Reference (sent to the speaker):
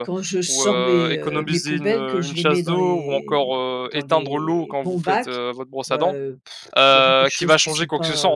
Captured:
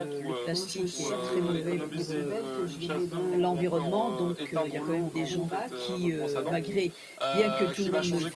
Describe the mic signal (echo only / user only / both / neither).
both